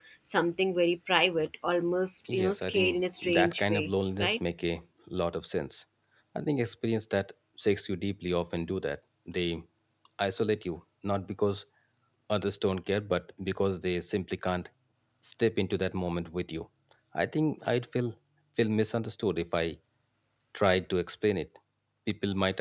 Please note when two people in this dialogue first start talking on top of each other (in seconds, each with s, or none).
2.3 s